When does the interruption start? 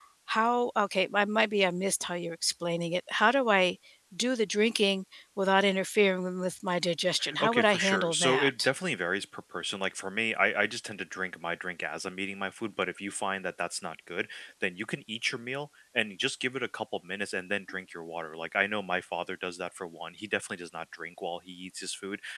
7.2 s

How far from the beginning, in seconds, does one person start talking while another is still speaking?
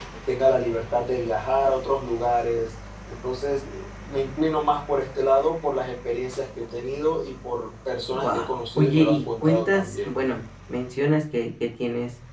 8.1 s

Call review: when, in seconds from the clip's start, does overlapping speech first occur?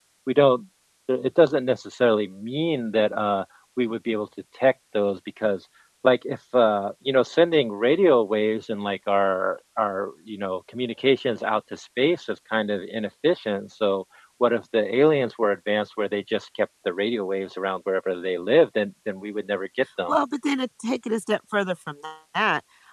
none

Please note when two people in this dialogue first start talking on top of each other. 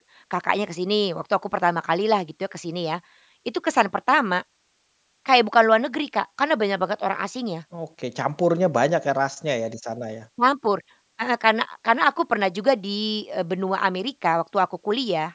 none

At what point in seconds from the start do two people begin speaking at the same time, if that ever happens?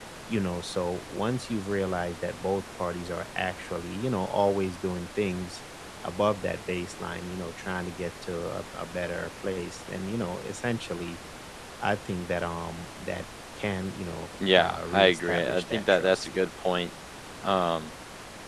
14.4 s

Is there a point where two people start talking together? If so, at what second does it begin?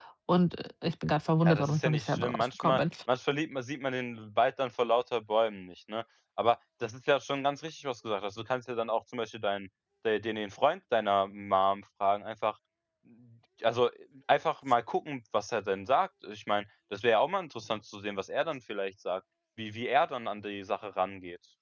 1.4 s

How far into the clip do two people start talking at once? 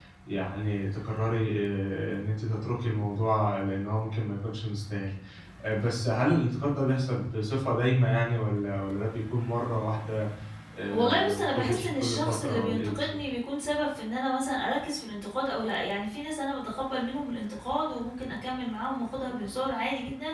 10.9 s

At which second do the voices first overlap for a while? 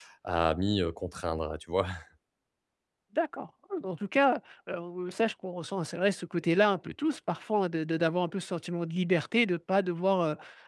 none

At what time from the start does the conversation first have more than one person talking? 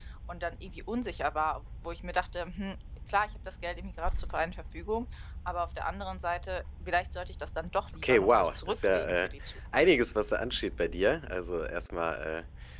8.0 s

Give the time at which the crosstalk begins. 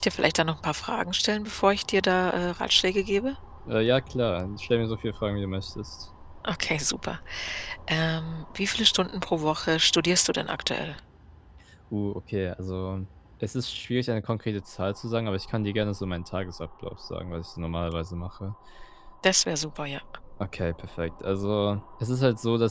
none

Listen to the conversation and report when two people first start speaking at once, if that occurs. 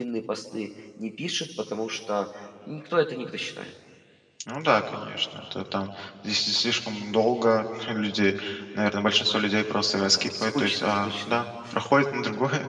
10.1 s

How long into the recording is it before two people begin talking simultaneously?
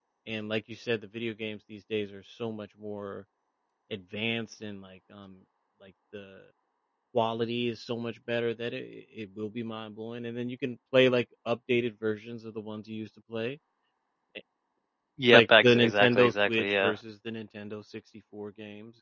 15.3 s

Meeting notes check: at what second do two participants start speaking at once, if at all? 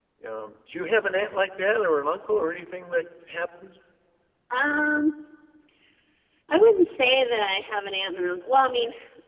none

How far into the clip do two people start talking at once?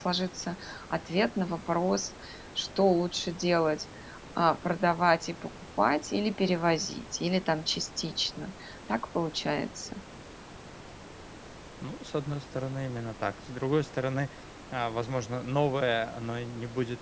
none

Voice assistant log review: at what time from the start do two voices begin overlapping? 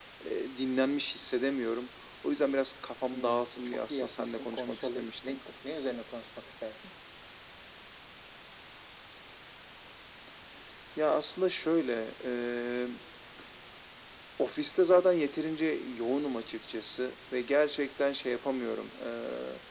3.1 s

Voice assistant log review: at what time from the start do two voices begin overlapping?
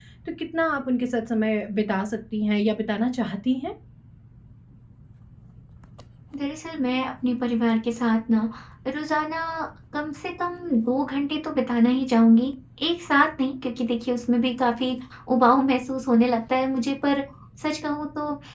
none

